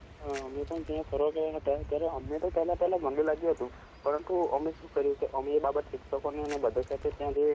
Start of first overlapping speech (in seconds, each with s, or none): none